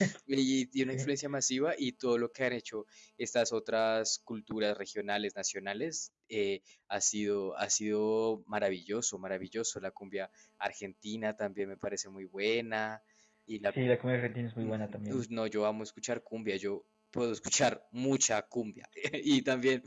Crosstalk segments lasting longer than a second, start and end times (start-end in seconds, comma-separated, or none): none